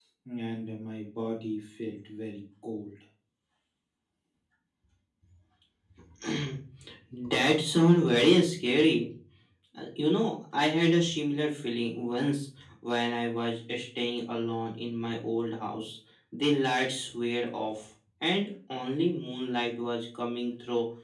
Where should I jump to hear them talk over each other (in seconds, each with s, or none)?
none